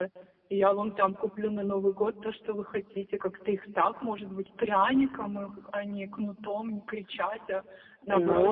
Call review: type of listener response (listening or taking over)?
taking over